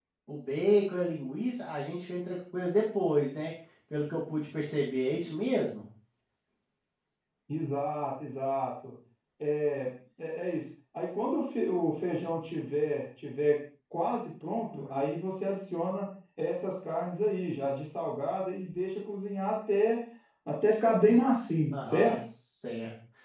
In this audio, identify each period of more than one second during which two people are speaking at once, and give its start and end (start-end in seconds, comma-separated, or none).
none